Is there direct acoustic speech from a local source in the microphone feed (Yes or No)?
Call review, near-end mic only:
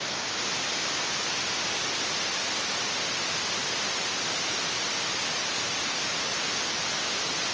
No